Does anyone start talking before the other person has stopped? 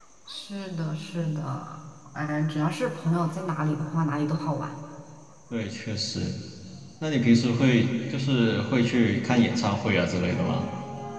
No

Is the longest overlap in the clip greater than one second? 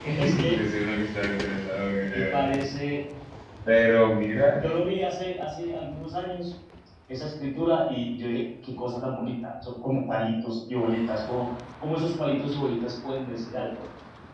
No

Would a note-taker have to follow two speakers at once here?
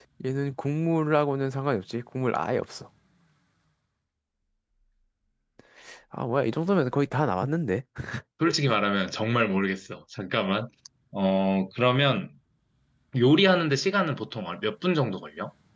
No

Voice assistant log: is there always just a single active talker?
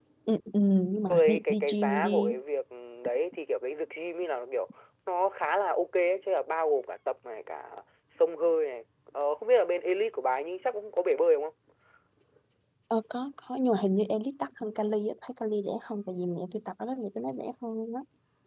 No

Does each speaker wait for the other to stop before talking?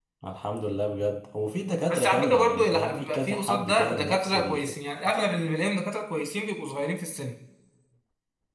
No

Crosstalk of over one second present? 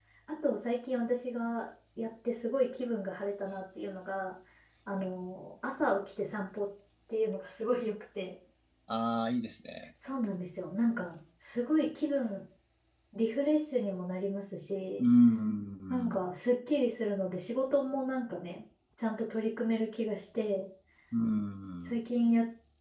No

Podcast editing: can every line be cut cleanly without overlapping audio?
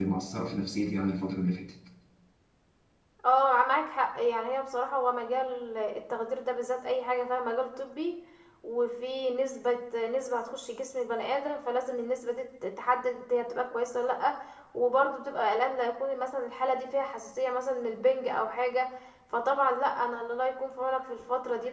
Yes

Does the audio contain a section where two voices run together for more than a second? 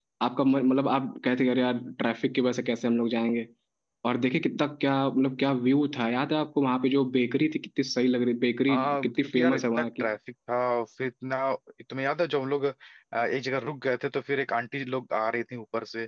Yes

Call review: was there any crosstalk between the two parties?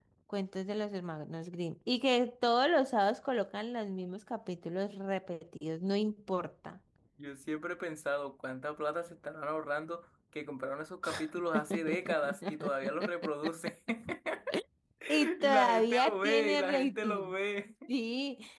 Yes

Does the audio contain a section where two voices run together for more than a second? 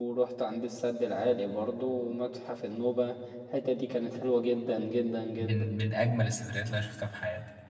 No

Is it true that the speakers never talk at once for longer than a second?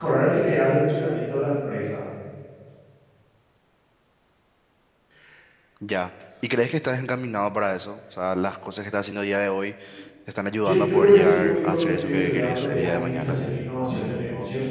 No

